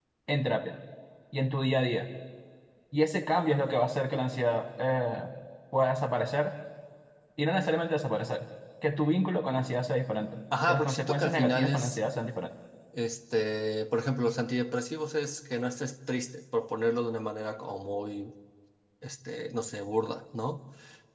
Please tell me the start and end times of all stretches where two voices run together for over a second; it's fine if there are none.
10.7-12.0

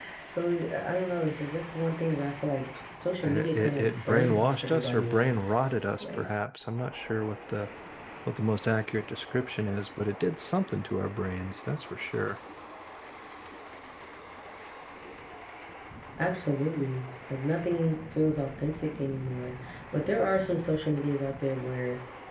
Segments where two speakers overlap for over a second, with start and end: 3.2-5.3

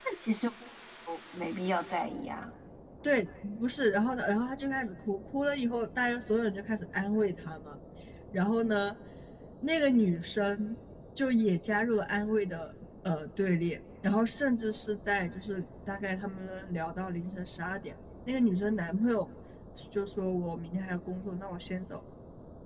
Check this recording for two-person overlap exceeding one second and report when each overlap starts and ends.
none

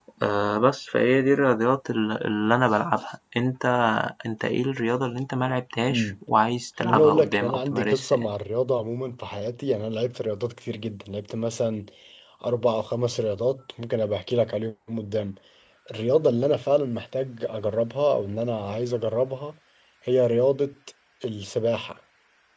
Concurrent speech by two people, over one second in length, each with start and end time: 6.8-8.3

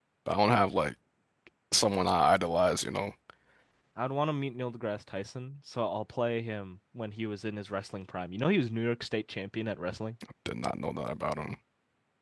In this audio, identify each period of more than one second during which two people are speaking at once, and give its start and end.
none

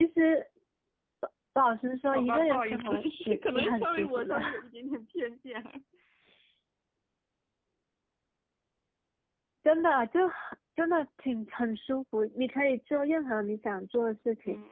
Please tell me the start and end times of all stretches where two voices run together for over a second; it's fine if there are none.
2.1-4.3

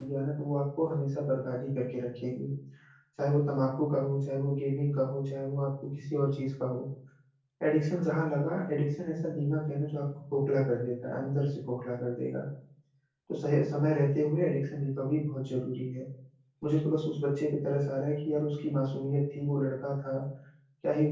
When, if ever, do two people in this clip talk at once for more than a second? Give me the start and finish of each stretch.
none

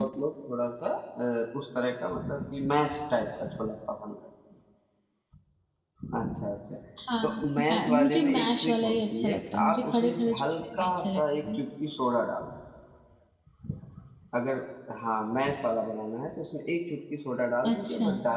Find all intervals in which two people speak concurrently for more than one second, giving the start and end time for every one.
7.2-11.6

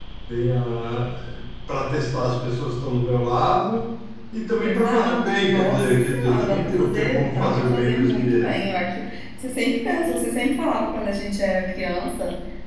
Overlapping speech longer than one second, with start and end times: 4.6-8.5

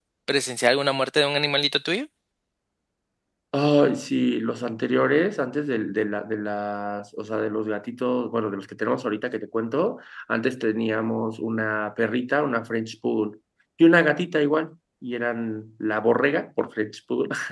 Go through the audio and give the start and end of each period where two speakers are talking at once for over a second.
none

